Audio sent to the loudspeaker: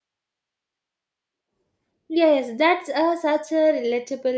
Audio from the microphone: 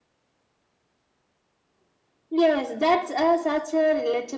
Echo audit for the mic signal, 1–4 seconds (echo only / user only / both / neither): echo only